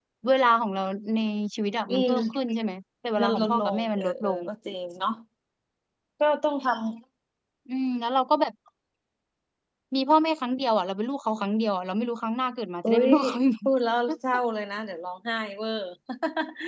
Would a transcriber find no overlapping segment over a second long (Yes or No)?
No